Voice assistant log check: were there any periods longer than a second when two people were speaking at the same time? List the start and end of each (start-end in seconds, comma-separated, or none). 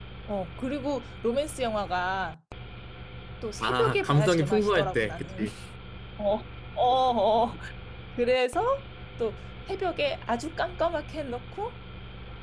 3.6-5.5